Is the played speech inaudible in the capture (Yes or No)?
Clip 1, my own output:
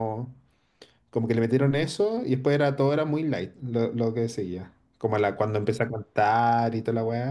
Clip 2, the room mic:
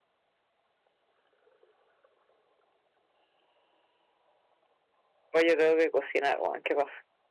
Yes